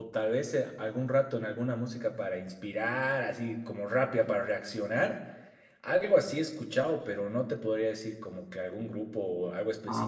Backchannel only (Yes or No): No